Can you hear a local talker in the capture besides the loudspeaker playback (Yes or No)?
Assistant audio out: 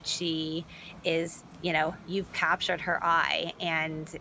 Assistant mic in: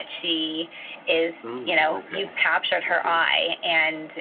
Yes